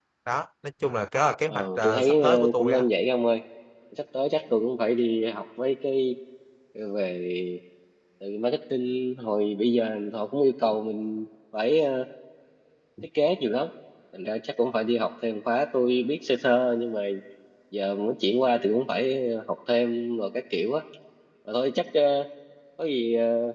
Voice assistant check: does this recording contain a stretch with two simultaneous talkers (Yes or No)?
Yes